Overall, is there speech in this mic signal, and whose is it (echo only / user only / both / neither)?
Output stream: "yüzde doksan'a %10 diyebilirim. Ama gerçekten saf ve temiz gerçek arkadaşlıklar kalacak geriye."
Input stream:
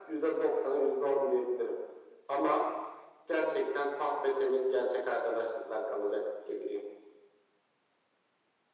echo only